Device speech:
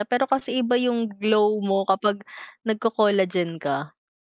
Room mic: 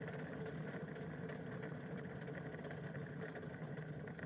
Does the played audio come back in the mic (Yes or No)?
No